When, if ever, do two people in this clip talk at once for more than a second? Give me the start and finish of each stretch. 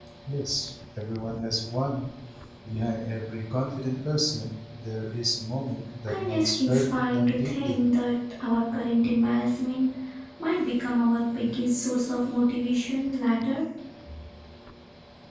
6.1-7.8

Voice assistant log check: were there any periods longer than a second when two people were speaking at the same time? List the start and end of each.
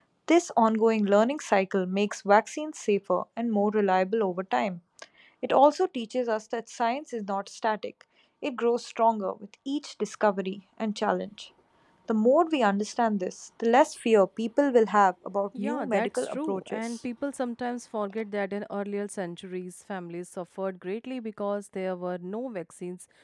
15.6-16.9

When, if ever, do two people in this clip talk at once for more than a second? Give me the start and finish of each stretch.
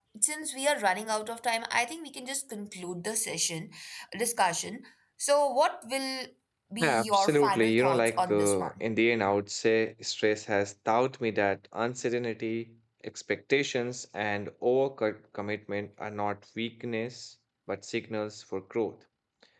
6.8-8.7

